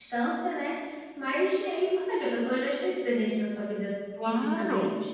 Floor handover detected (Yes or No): Yes